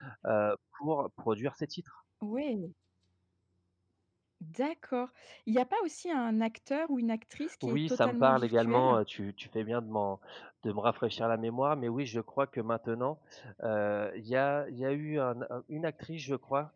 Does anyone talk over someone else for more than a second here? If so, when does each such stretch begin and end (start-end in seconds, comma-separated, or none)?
7.6-9.0